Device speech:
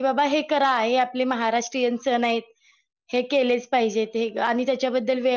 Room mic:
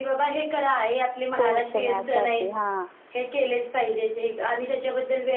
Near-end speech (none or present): present